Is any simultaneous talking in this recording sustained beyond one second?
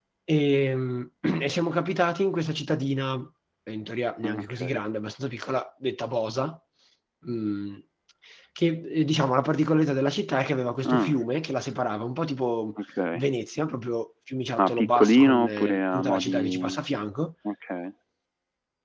Yes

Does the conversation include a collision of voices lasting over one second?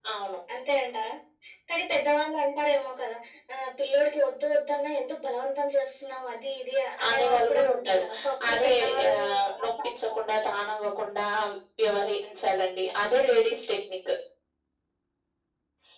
Yes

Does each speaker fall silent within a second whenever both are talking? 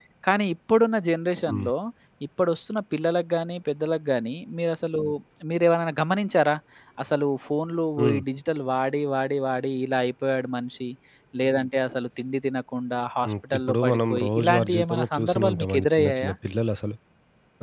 No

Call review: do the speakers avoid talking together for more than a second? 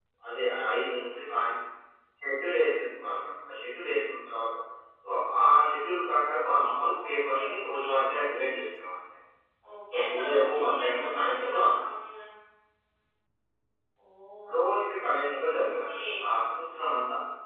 No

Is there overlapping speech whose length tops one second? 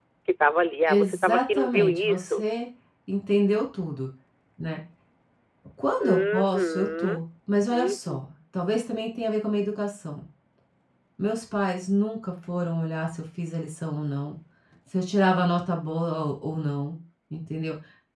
Yes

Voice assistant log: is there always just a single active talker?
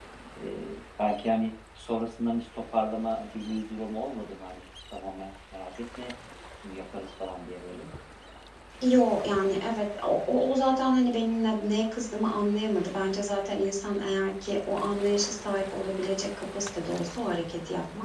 Yes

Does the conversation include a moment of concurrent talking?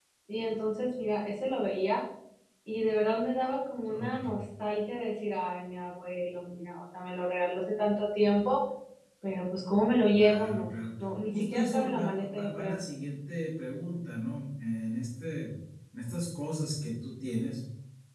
Yes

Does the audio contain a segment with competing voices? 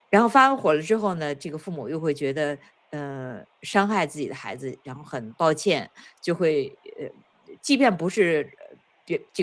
No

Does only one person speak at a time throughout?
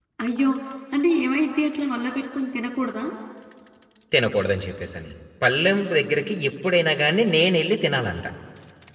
Yes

